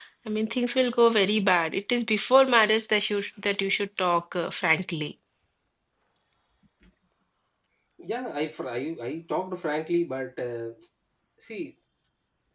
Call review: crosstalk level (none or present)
none